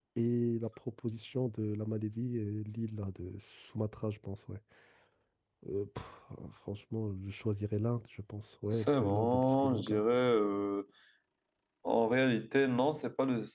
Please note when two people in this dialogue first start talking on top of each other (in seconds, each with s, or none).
8.7 s